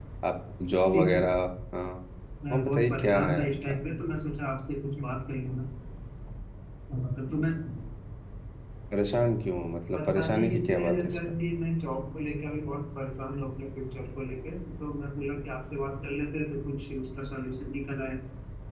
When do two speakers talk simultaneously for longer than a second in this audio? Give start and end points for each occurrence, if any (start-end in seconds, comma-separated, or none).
2.5-3.8, 9.9-11.3